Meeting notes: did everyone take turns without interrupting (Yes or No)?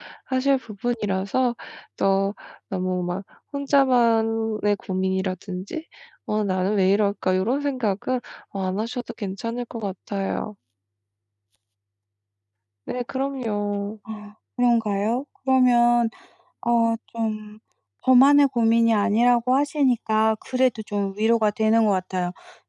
Yes